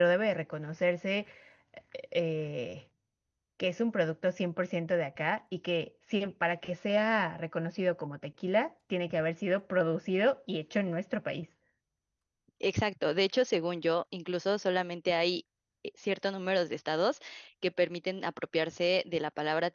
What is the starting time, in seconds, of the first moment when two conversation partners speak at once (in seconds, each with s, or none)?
none